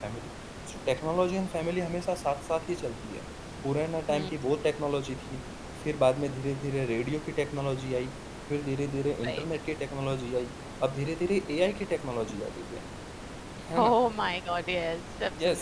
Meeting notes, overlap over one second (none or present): none